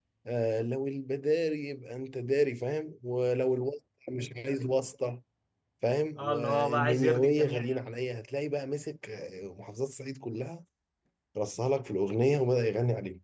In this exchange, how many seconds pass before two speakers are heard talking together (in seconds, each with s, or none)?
6.2 s